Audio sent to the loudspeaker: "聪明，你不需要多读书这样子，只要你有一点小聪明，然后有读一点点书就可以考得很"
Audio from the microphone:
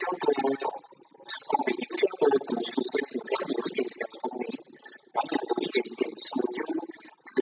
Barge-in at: none

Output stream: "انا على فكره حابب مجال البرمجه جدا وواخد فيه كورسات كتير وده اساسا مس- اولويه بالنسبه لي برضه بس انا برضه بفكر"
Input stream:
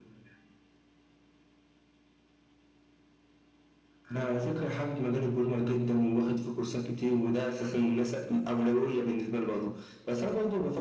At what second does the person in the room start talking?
none

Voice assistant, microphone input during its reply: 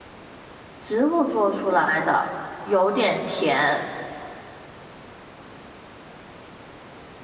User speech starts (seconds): 0.8 s

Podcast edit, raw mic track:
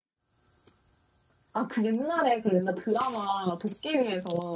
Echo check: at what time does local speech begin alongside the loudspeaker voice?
none

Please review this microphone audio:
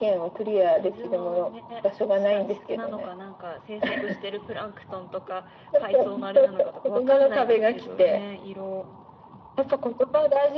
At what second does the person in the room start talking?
none

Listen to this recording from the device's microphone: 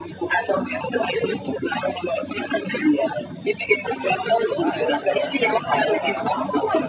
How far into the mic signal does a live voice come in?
3.8 s

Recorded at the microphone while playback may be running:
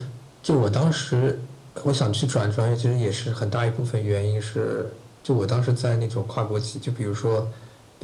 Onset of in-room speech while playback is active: none

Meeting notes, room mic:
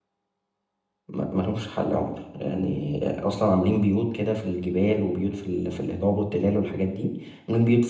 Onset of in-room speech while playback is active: 1.1 s

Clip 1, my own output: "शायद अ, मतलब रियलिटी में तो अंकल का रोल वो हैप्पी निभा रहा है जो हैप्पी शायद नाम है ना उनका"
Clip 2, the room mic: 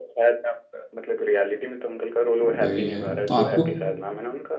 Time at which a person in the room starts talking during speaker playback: 2.4 s

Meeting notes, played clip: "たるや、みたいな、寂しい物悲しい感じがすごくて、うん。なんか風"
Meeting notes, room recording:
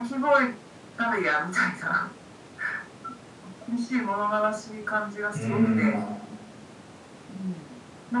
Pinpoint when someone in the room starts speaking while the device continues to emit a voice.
5.3 s

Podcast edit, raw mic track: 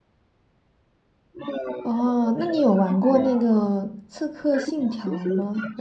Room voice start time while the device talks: 1.8 s

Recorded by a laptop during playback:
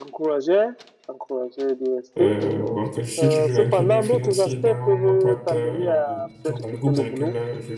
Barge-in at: 2.2 s

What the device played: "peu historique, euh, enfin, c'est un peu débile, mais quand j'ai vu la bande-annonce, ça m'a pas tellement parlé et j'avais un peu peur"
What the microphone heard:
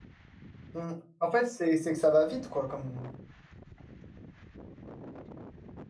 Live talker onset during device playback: 0.7 s

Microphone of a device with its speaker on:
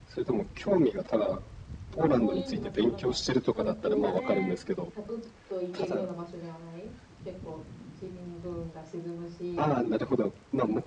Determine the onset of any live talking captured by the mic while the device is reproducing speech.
1.9 s

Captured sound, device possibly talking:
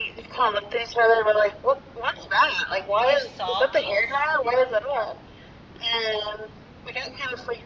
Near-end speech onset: 3.0 s

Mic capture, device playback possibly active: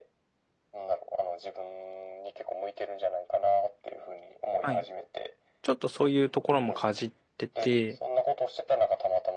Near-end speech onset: 4.6 s

